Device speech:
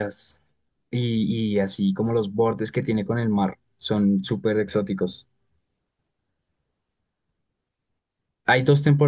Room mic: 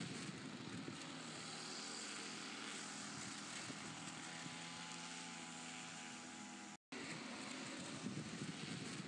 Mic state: neither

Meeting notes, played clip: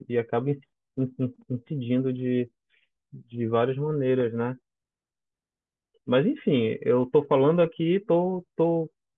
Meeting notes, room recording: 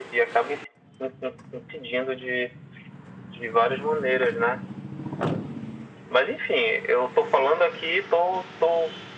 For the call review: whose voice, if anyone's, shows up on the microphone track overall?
echo only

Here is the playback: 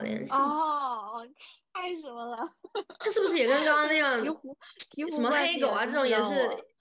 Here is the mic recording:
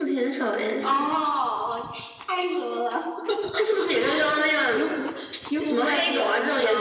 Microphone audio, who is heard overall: echo only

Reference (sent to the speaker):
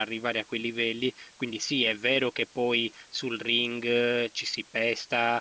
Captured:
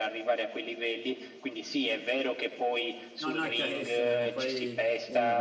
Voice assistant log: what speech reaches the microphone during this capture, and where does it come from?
both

